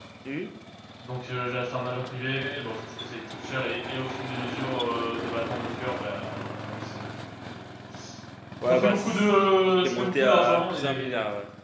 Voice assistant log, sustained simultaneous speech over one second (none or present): present